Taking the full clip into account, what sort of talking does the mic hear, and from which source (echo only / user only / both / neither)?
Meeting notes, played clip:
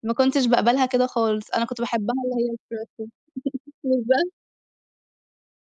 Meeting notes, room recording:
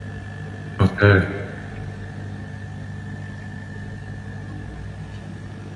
user only